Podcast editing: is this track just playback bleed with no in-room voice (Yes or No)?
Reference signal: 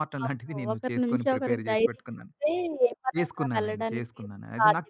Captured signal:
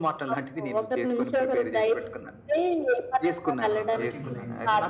No